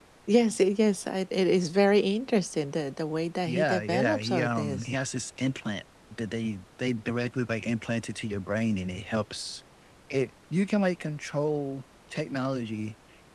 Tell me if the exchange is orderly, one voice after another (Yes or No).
No